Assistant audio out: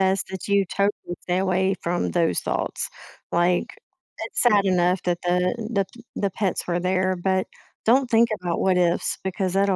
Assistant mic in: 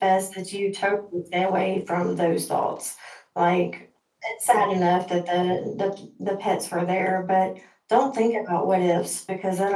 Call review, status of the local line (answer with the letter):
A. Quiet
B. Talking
A